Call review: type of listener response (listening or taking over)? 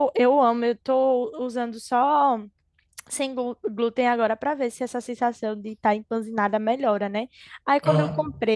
listening